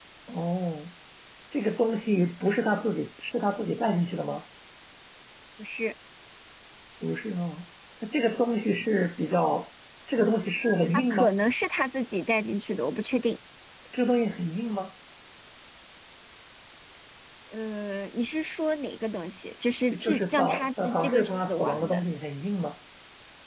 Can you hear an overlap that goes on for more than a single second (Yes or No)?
Yes